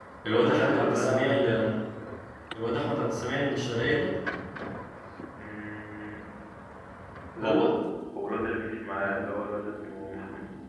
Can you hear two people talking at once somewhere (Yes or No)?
Yes